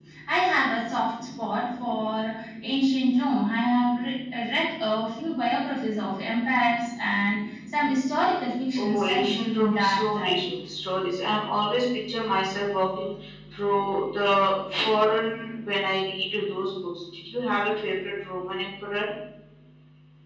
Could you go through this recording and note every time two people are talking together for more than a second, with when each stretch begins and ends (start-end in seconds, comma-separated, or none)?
8.8-10.4